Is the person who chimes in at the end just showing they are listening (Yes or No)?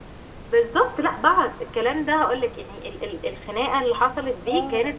Yes